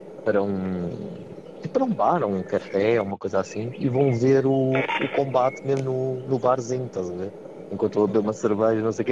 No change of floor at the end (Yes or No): Yes